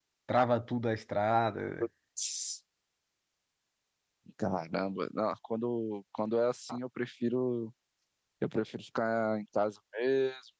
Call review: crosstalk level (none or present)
none